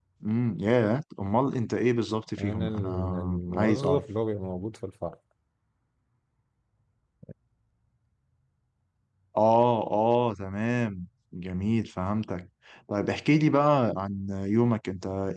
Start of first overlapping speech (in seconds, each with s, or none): 2.3 s